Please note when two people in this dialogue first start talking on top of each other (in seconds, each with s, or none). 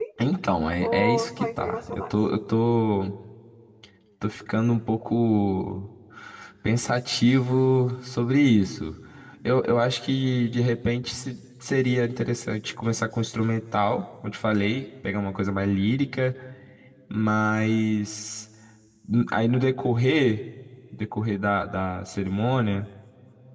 0.8 s